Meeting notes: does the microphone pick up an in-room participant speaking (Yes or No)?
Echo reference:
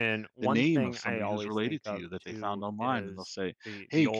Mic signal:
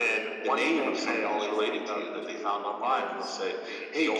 No